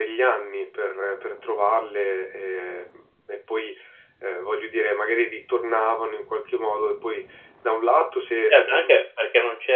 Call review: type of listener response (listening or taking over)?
taking over